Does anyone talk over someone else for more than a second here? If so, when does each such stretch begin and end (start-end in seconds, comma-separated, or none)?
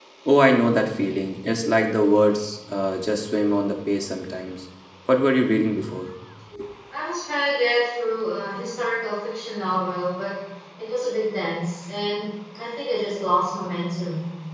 none